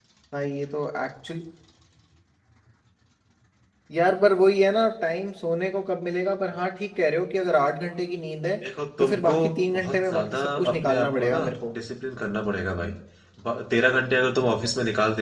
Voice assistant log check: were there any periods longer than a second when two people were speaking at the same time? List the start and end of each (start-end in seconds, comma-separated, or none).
9.7-11.4